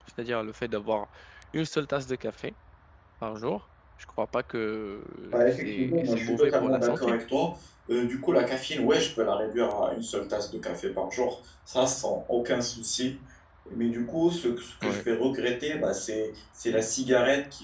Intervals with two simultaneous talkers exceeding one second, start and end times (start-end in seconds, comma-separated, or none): 5.3-7.2